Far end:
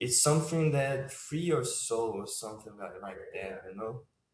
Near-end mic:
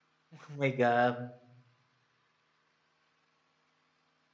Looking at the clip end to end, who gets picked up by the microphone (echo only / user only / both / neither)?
user only